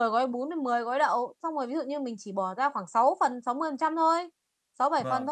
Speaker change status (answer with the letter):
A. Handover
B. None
B